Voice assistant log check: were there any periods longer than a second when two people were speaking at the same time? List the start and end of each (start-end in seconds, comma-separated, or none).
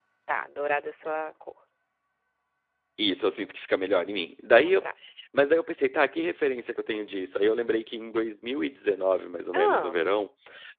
none